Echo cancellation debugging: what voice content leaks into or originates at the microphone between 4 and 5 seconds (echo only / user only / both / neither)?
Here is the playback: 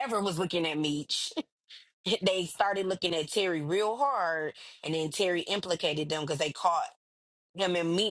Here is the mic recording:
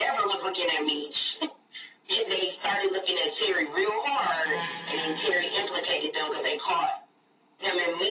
both